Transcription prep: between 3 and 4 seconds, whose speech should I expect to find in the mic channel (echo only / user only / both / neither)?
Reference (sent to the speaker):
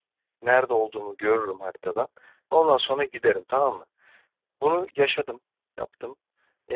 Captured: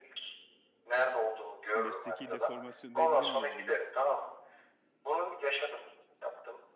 both